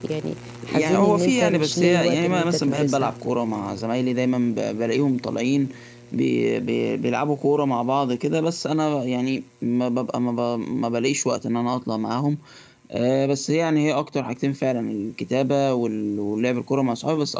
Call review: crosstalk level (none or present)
present